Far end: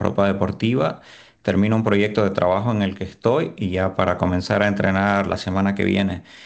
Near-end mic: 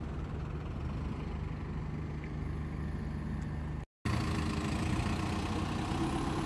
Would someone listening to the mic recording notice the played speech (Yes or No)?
No